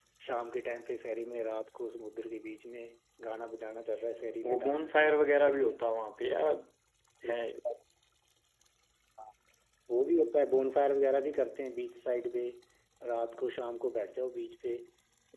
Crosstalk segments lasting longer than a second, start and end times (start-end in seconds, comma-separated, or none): 4.4-5.8